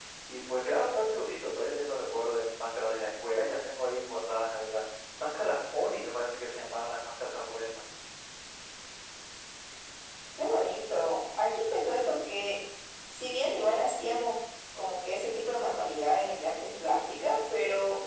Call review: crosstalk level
none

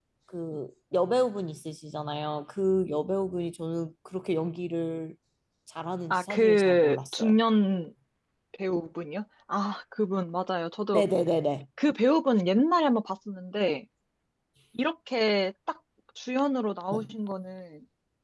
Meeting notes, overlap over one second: present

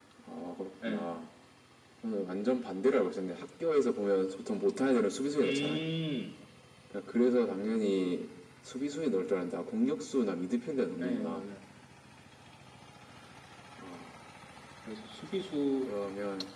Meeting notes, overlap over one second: none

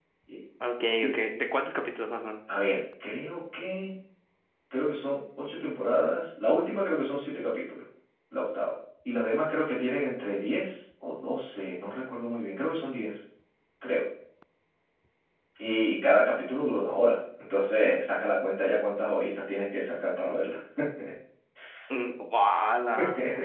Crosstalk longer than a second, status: none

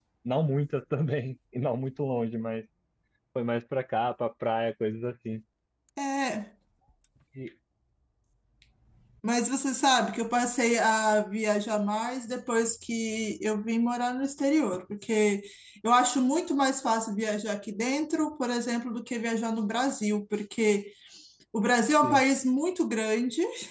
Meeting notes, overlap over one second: none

